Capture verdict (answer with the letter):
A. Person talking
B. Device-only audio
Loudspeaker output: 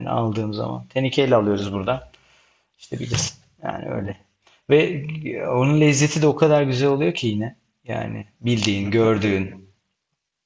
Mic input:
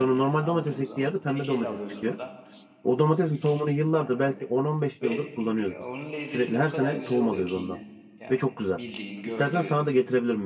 A